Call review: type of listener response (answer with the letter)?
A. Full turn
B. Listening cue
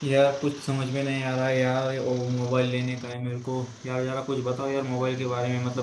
B